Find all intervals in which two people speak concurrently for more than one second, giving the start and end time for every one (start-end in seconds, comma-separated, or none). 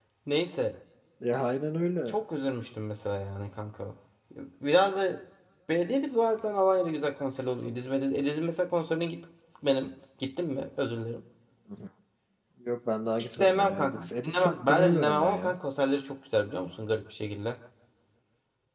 13.2-15.5